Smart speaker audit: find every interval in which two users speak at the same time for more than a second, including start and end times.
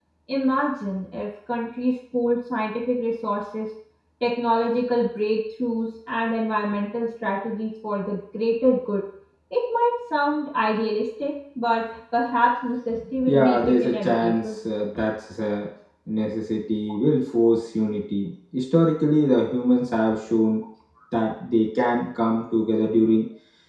13.3-14.6

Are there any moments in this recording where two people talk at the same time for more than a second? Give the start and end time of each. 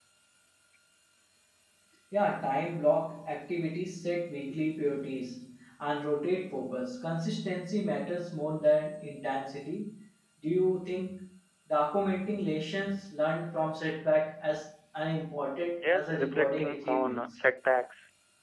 15.8-17.3

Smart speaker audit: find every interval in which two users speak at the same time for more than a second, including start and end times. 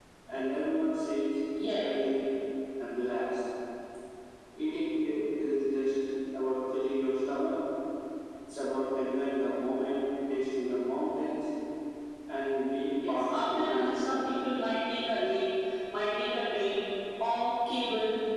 13.1-14.3

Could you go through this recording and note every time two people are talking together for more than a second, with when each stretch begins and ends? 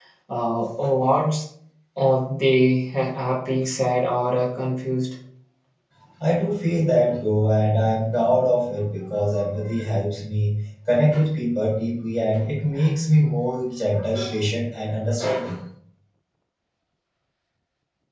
none

